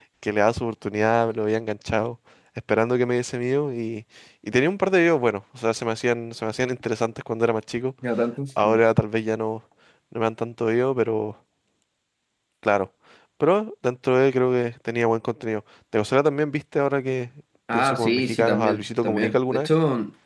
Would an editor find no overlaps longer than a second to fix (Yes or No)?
No